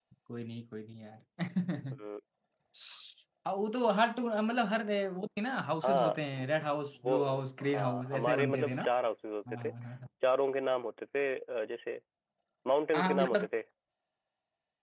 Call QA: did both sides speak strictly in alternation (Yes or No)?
No